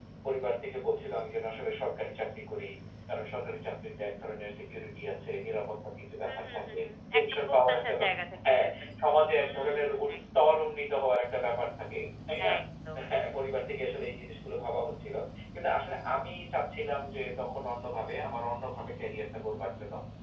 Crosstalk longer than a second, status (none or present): present